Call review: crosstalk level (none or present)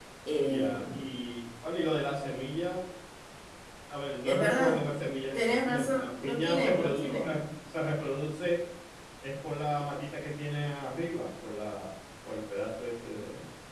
present